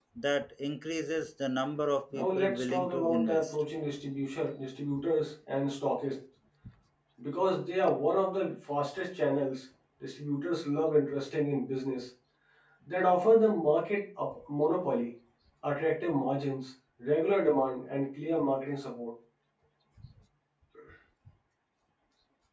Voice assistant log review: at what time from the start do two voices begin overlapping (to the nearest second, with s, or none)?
2 s